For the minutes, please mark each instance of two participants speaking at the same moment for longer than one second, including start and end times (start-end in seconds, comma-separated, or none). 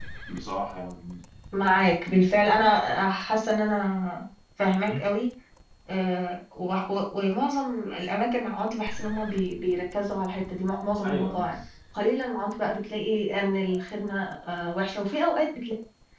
none